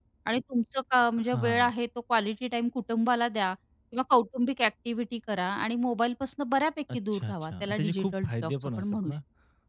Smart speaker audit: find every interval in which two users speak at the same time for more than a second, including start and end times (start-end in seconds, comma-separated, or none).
6.9-9.1